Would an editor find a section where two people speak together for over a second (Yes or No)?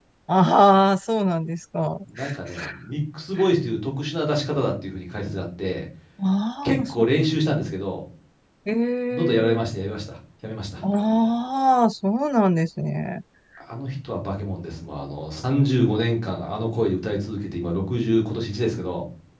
No